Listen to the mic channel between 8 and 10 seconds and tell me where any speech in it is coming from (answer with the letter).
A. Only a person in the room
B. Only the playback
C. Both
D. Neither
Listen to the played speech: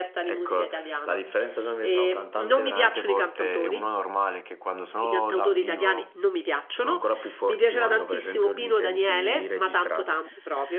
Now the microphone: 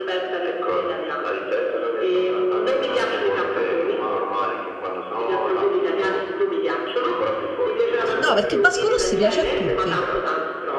C